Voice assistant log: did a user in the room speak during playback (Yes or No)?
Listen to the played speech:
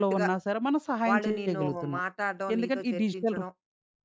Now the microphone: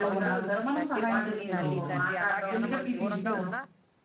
Yes